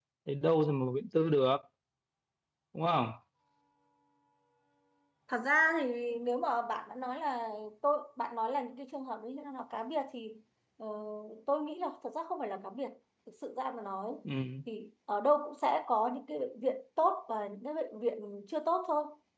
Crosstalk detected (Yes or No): No